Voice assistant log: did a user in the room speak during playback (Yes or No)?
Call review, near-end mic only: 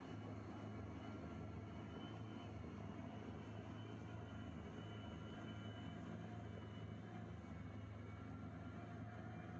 No